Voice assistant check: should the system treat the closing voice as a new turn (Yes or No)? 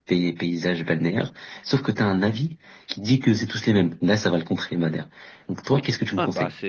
Yes